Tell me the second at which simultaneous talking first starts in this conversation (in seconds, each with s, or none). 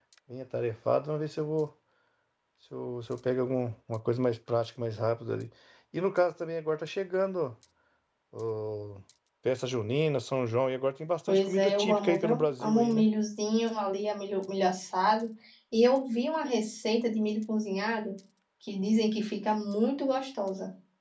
11.3 s